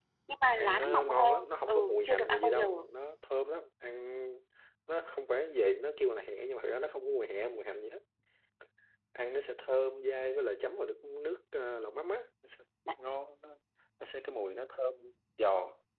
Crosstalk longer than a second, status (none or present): present